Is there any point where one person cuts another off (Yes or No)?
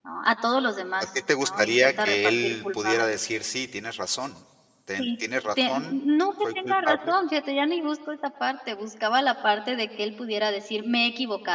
Yes